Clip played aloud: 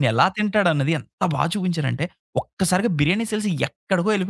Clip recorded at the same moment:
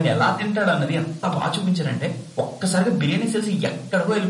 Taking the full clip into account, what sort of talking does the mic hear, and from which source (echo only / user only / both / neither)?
echo only